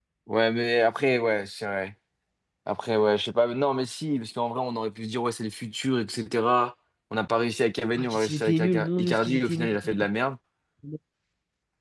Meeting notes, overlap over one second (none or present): present